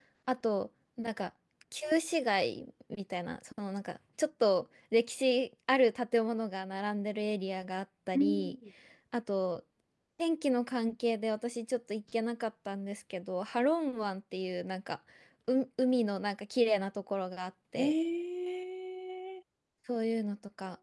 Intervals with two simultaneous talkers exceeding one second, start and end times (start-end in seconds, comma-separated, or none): none